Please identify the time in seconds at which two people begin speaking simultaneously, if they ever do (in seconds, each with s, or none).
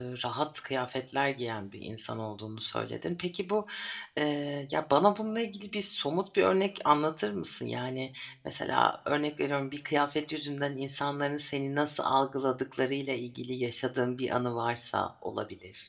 none